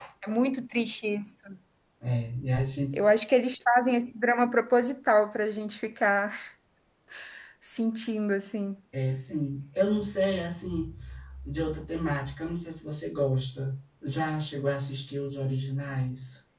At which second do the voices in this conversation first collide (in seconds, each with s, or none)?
none